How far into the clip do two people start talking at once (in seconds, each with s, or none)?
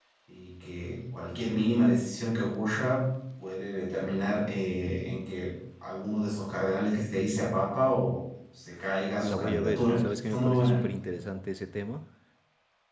9.2 s